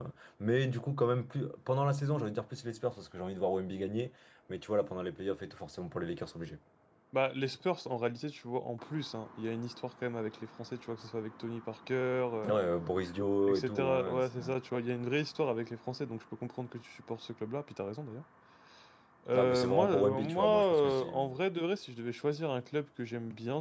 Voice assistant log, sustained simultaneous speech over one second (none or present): present